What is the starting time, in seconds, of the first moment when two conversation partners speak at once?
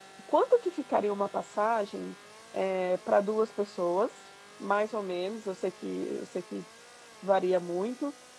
none

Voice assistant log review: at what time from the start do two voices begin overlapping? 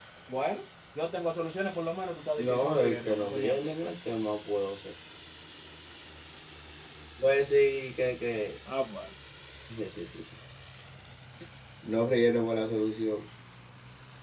2.4 s

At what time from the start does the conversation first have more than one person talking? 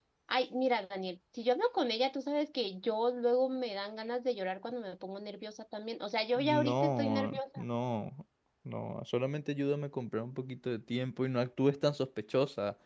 6.3 s

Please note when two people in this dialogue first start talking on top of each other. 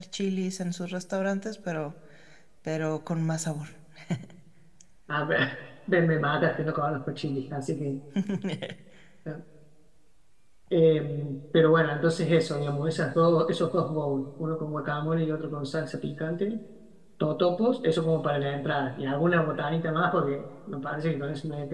none

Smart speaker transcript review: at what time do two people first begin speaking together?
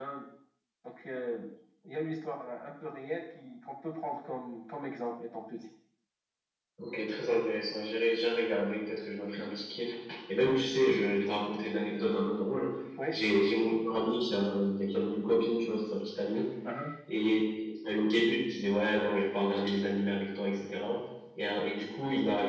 none

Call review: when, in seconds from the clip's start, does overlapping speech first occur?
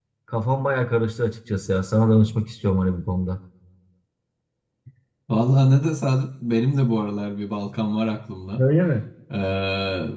none

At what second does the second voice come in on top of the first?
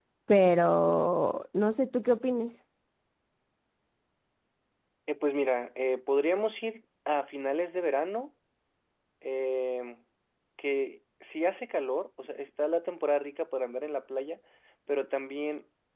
none

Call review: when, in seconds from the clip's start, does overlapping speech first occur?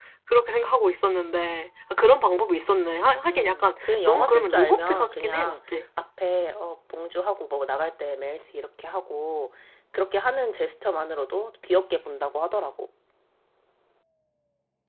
3.2 s

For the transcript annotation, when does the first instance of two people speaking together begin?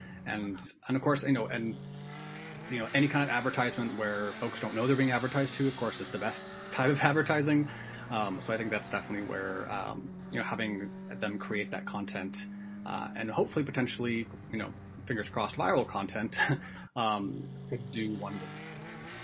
none

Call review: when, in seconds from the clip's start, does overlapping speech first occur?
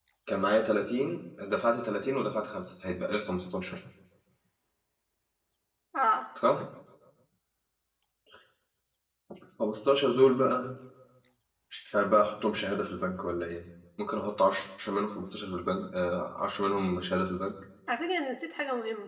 none

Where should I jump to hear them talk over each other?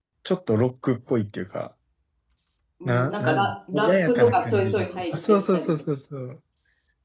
2.9 s

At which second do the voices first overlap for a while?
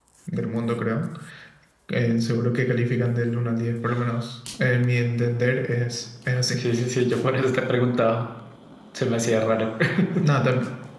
none

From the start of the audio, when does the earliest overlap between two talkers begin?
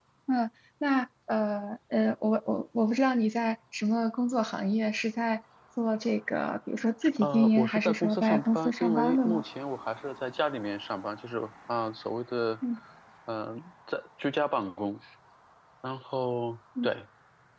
7.0 s

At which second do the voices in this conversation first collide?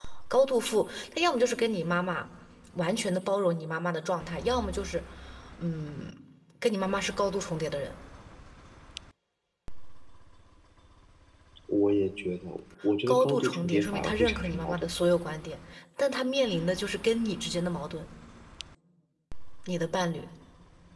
13.1 s

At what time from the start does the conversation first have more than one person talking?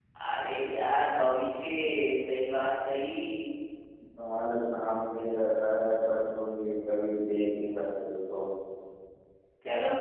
none

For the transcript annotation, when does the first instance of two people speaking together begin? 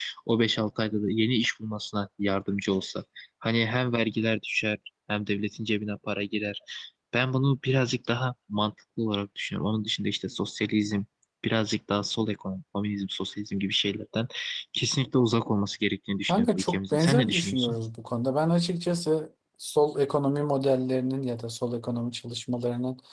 16.3 s

